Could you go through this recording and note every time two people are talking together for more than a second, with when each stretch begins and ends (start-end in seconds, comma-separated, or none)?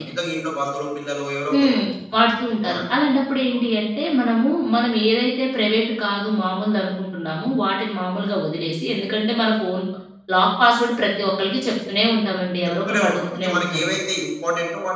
12.6-13.9